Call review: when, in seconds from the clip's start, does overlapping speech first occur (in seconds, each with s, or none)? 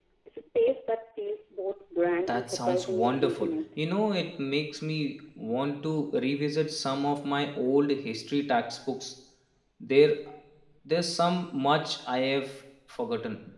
2.3 s